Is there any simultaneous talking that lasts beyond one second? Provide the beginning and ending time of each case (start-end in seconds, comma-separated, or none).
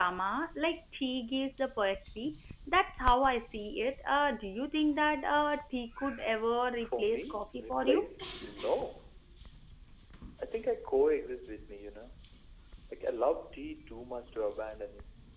6.8-8.0